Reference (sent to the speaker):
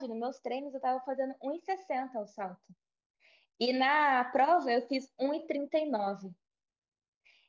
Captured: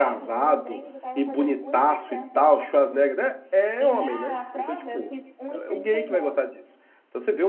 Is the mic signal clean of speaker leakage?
No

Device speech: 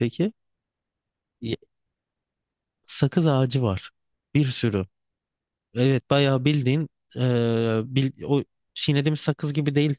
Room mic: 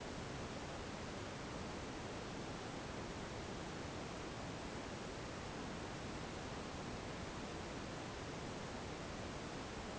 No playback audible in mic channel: Yes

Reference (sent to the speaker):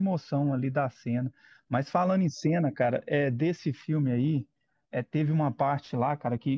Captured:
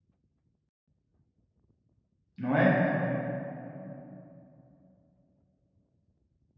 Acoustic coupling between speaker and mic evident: No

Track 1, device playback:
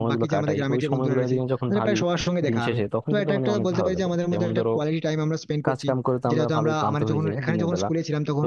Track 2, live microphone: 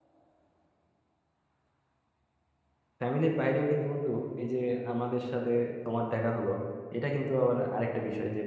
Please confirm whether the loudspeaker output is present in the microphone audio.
No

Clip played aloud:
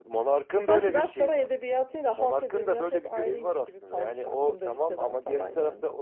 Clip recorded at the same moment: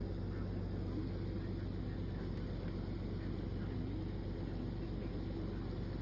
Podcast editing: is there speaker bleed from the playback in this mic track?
No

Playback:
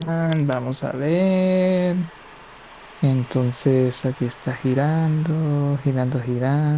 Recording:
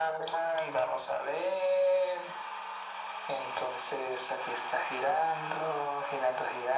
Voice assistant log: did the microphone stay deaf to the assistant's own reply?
No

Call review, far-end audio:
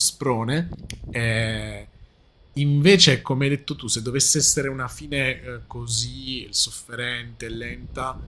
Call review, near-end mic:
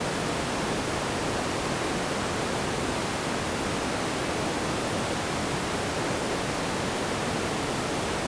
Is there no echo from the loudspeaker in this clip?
Yes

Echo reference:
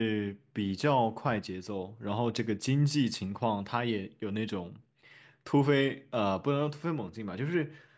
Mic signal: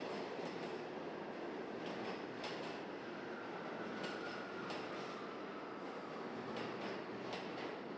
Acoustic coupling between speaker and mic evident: No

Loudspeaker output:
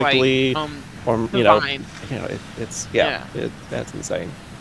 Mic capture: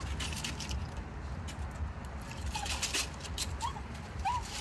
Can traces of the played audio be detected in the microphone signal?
No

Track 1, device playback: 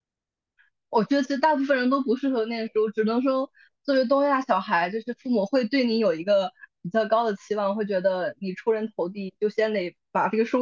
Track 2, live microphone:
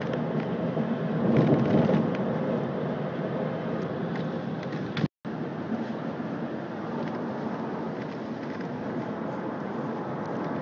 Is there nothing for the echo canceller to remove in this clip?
Yes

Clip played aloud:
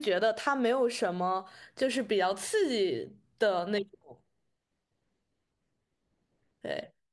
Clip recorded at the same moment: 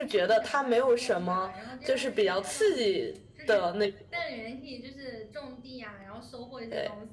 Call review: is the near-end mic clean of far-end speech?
No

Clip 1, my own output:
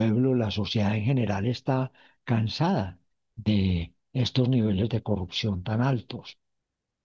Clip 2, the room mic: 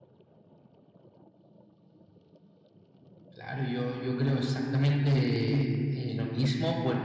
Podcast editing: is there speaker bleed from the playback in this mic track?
No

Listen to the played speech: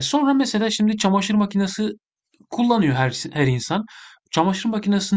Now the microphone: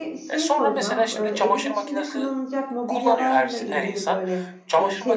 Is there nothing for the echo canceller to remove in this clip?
No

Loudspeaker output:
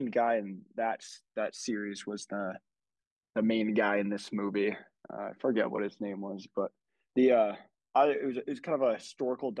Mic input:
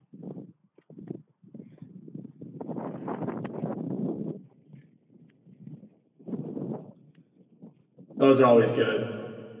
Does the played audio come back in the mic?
No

